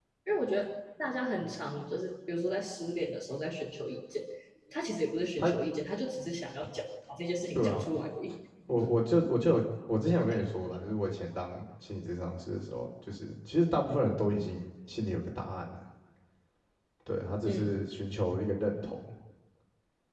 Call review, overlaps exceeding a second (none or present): none